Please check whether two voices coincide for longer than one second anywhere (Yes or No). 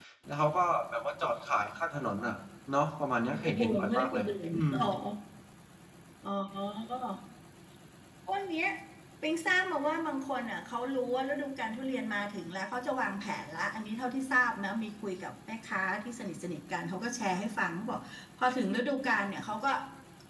Yes